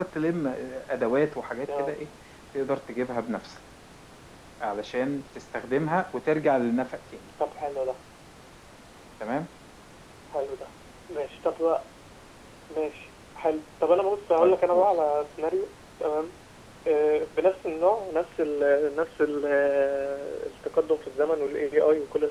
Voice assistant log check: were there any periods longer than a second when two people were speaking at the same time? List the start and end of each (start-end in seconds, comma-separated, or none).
none